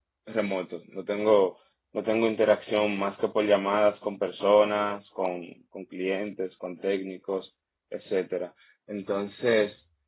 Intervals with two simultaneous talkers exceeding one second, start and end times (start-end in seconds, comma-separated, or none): none